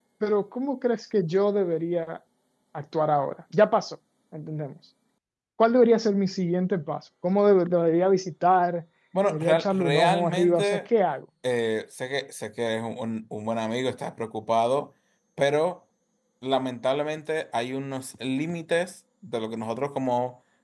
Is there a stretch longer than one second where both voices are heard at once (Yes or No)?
Yes